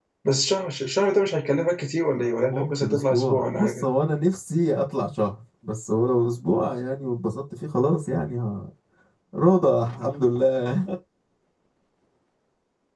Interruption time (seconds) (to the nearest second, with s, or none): 2 s